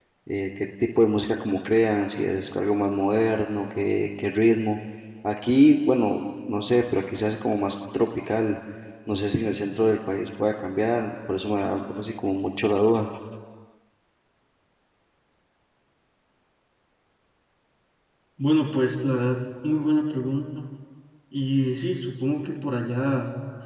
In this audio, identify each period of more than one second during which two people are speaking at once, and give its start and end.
none

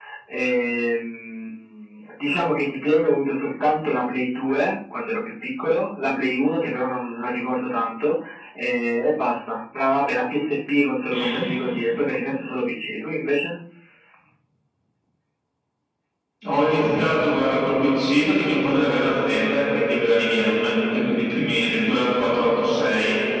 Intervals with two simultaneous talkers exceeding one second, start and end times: none

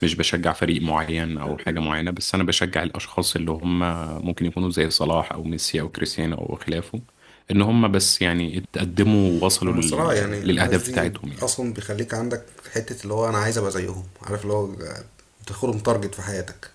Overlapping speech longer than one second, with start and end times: 9.7-11.5

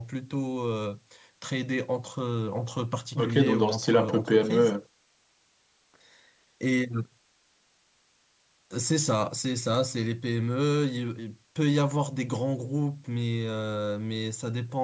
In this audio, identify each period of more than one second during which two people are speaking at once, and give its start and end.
3.2-4.7

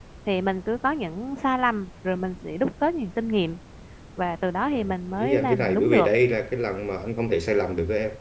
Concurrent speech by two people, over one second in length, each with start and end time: 4.7-6.1

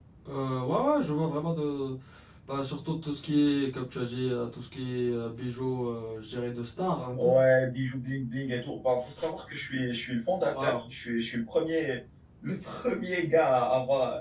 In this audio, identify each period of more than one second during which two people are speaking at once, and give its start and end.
none

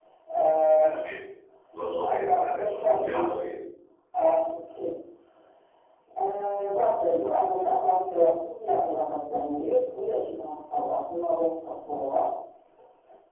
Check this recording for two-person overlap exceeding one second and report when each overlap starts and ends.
2.1-3.3

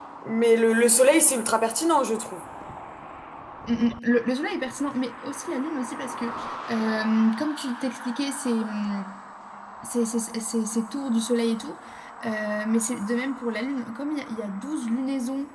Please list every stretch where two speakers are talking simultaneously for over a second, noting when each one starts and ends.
none

